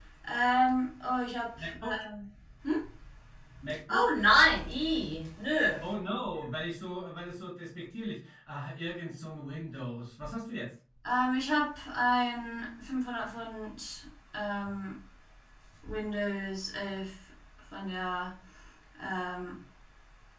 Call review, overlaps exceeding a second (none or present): none